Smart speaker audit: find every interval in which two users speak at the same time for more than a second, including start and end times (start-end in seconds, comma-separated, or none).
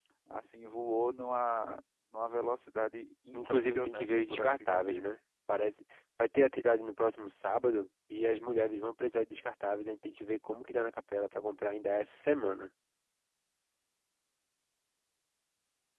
3.3-5.0